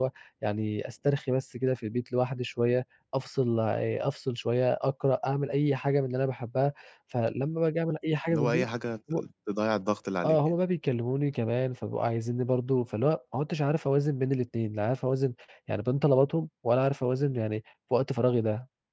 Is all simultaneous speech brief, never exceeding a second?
Yes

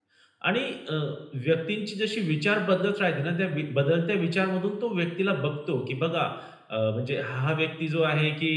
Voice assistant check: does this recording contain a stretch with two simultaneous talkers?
No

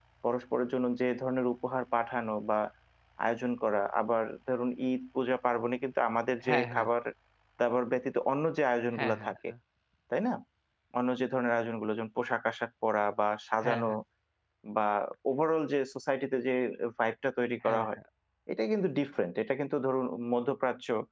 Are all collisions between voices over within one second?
Yes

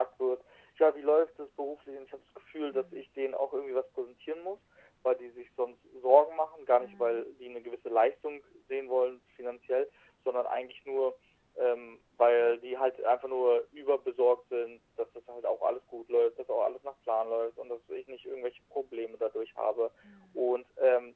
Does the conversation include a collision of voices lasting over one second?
No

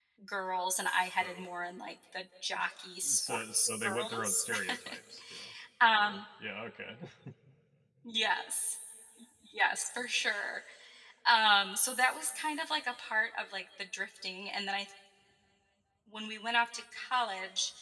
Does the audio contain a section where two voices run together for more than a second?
Yes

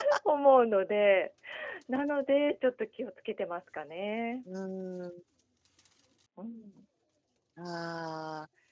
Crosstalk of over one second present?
No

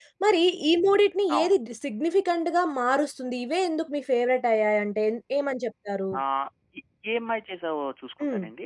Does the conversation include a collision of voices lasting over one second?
No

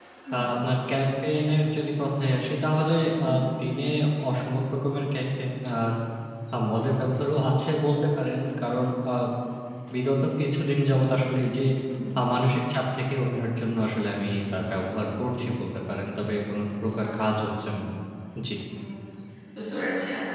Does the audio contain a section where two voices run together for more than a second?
No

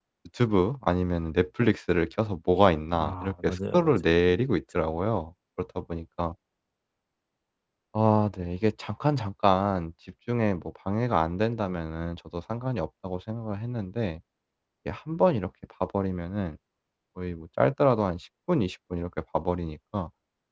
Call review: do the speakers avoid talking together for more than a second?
No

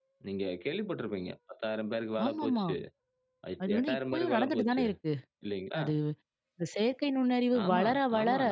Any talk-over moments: Yes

